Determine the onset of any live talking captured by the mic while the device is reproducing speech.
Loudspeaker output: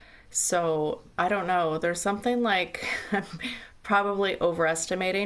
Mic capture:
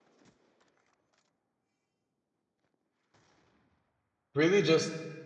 4.3 s

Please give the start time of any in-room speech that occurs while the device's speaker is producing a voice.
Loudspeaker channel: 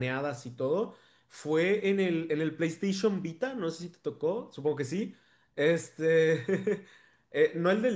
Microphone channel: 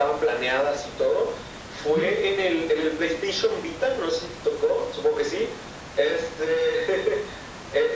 1.9 s

